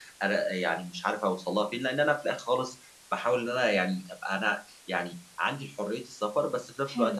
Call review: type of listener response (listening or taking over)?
listening